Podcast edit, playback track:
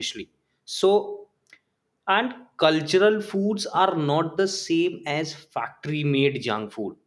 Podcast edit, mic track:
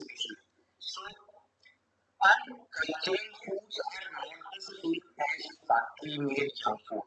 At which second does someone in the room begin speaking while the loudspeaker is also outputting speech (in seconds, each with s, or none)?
none